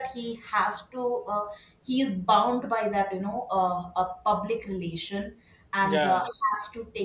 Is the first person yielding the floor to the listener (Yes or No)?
No